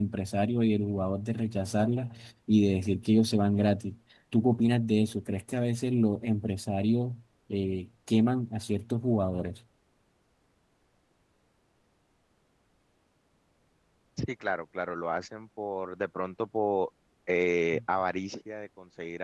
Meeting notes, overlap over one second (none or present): none